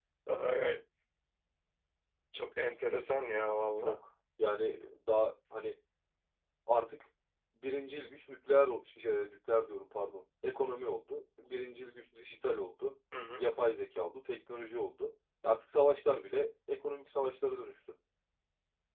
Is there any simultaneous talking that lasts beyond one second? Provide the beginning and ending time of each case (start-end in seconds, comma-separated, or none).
none